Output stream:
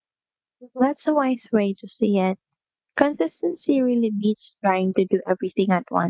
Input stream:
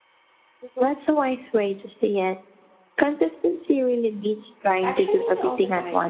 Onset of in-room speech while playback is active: 5 s

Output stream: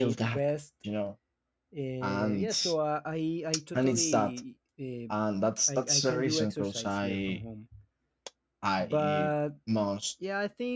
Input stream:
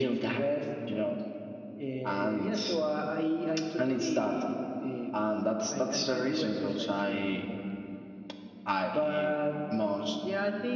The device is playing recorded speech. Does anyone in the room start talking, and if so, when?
none

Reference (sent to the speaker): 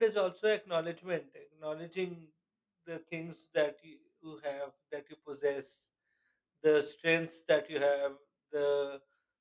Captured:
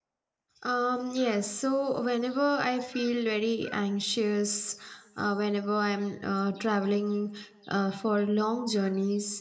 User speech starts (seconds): 1 s

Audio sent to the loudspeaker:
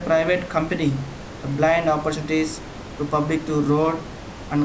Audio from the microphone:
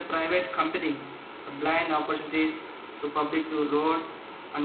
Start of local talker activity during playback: none

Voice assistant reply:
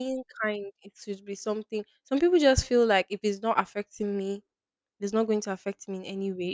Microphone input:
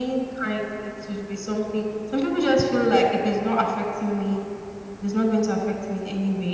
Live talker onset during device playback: none

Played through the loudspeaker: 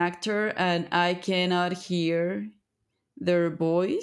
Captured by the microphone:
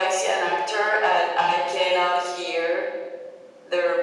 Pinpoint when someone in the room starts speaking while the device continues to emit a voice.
none

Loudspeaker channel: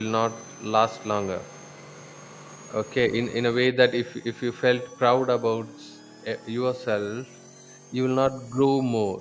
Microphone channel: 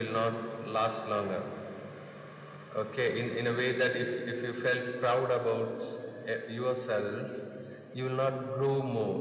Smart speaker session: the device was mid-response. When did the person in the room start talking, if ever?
none

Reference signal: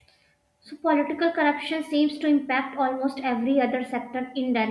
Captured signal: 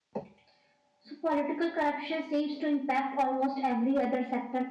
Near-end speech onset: none

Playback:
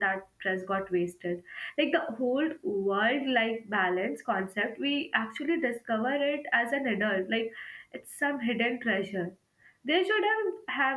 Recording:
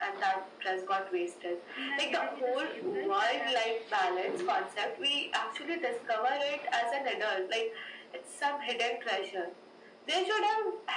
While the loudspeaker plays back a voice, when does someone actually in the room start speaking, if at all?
2 s

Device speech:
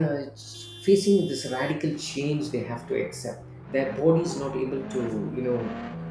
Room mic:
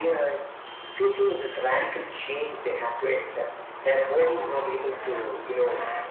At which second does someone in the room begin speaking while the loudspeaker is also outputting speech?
none

